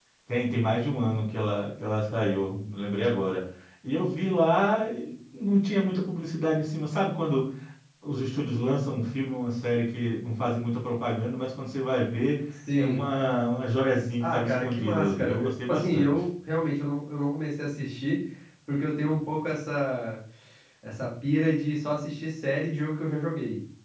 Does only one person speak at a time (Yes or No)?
No